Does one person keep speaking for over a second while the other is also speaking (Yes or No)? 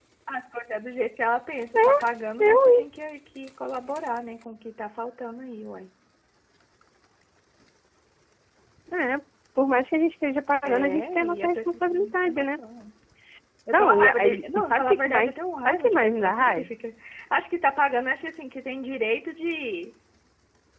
Yes